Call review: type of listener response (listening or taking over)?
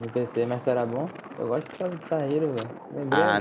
taking over